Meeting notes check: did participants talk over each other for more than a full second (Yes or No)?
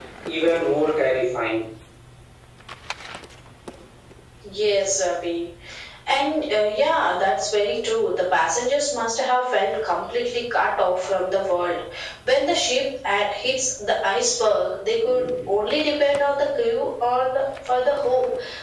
No